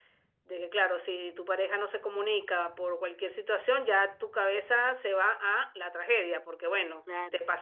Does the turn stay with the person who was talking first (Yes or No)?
No